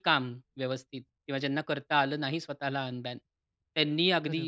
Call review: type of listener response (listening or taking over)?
listening